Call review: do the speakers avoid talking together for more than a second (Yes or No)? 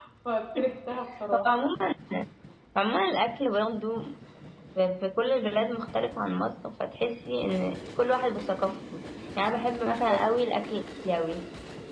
Yes